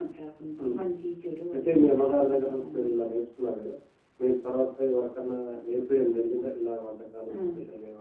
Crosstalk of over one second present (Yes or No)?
Yes